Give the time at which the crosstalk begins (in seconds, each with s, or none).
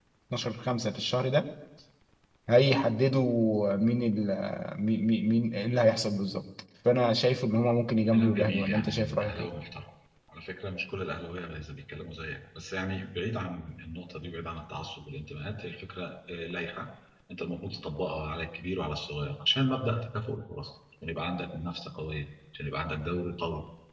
8.1 s